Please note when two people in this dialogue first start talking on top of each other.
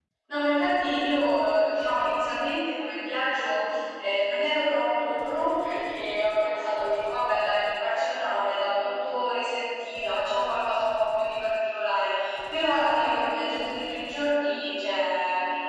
none

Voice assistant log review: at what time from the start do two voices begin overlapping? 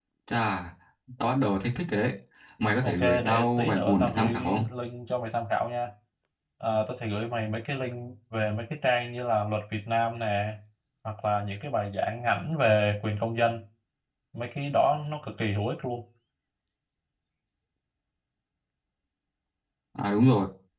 2.8 s

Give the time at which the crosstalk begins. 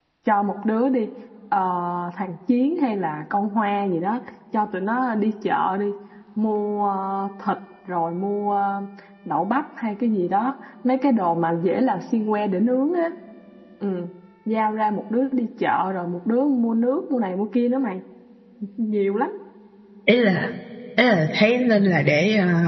none

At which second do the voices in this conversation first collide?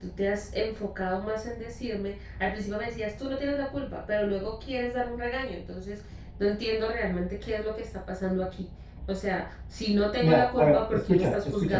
10.2 s

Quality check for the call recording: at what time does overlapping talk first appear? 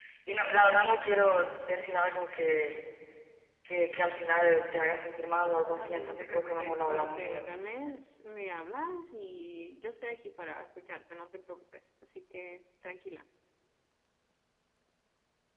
5.7 s

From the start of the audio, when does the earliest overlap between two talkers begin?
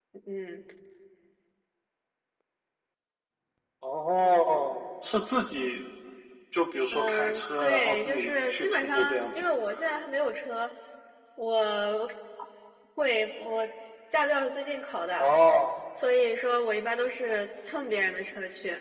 6.9 s

